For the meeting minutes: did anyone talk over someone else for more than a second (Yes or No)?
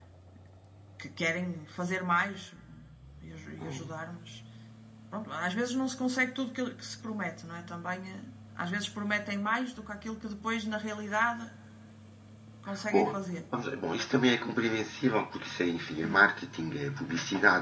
No